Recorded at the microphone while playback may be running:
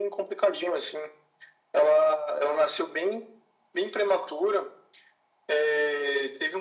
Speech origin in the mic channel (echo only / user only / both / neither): echo only